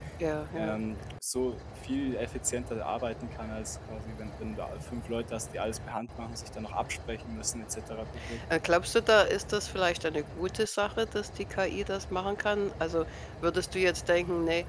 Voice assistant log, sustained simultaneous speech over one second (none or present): none